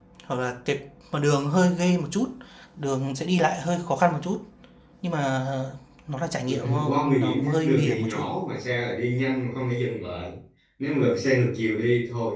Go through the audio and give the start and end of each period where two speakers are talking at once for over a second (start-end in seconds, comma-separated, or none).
6.5-8.3